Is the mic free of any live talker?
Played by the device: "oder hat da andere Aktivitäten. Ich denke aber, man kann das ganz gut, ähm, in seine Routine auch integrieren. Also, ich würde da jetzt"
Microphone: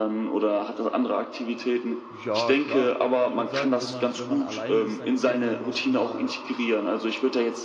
No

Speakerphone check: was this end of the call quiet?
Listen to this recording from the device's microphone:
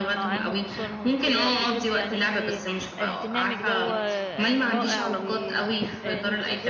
No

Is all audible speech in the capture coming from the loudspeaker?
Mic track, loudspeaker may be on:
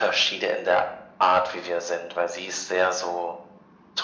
Yes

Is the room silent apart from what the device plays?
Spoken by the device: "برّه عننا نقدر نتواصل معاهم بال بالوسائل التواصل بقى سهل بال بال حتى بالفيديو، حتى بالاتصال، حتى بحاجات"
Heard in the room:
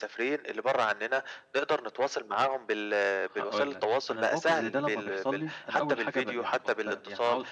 No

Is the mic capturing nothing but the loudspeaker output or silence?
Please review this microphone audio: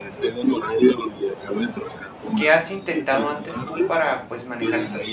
No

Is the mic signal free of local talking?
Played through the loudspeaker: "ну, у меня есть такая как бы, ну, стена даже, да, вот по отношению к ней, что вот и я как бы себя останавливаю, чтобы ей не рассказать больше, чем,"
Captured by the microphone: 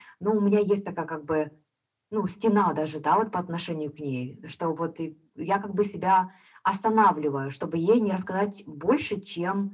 Yes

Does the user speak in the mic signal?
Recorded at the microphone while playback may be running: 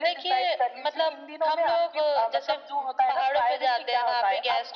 No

